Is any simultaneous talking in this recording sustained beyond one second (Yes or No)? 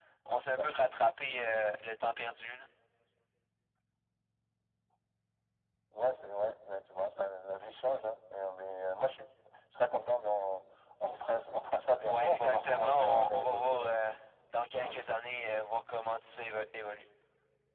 Yes